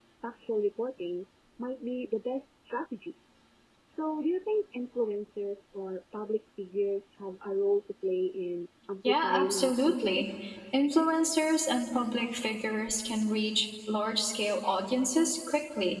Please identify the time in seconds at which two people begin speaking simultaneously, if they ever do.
9.0 s

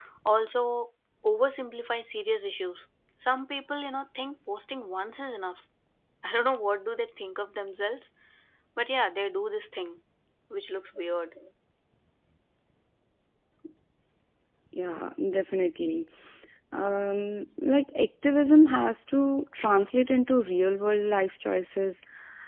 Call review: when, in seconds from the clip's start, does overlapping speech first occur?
none

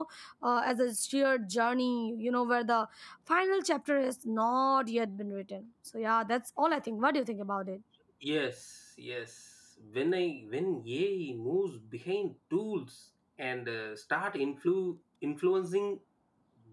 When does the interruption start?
none

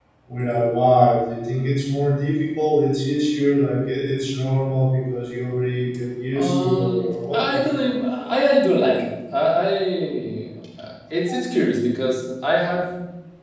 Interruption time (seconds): 6.3 s

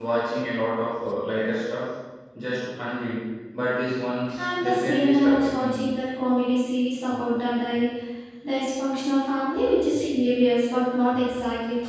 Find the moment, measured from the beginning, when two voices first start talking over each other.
4.4 s

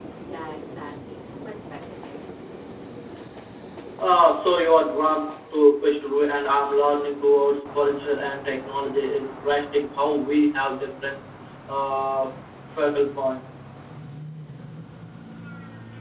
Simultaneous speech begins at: none

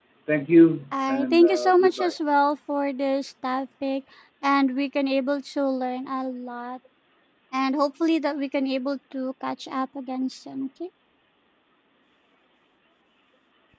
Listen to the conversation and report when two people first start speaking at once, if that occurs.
0.9 s

